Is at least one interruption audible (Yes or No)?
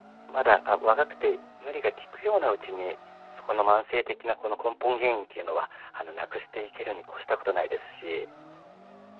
No